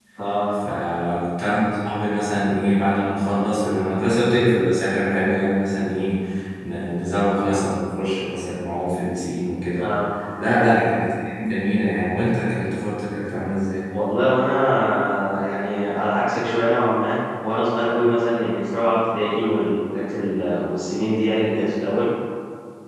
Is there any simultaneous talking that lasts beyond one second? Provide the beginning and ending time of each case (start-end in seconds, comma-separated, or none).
none